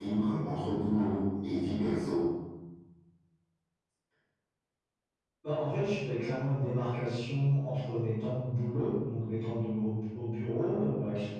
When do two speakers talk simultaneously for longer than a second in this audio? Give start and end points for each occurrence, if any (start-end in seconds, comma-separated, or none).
none